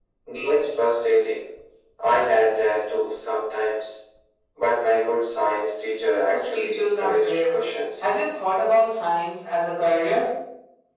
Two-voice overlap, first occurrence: 6.2 s

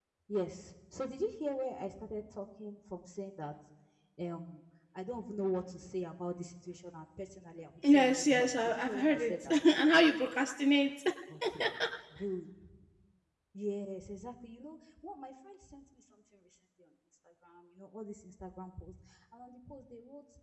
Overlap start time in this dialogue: 7.8 s

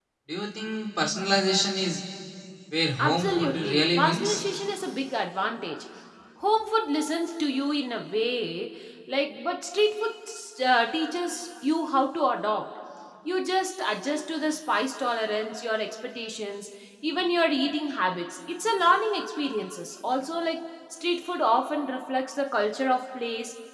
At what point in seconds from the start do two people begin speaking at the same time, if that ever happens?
3.0 s

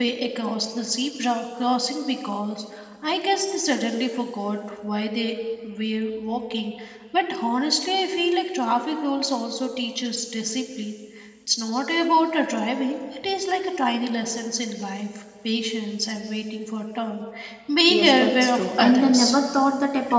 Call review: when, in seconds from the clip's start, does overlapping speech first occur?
17.9 s

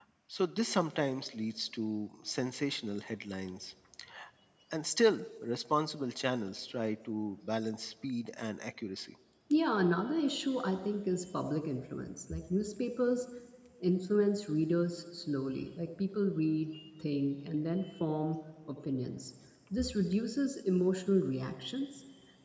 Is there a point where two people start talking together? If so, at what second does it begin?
none

